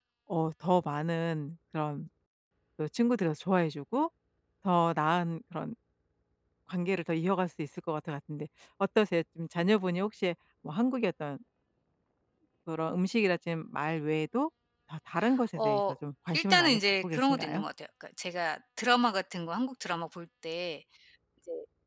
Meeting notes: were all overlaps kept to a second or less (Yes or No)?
No